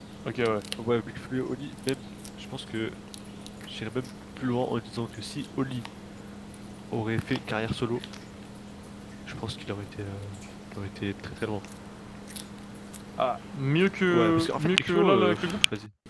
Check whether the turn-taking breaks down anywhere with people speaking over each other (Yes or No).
Yes